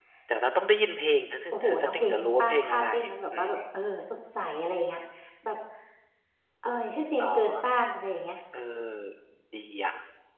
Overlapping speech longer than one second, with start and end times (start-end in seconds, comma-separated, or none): 1.5-2.8